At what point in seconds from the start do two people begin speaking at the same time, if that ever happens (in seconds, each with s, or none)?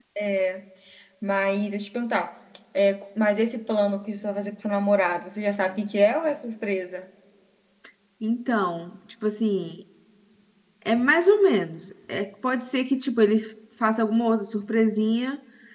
none